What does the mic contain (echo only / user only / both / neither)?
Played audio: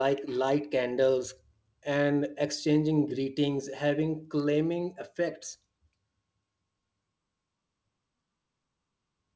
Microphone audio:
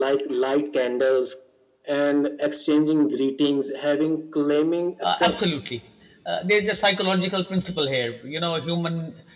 both